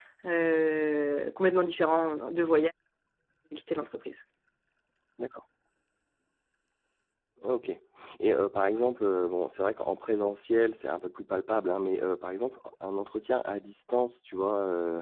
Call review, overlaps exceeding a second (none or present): none